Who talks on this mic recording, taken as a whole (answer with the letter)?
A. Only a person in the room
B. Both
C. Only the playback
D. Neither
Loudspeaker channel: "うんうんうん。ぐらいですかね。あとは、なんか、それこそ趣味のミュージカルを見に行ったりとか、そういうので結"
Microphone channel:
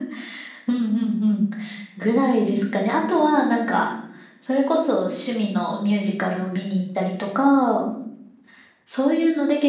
C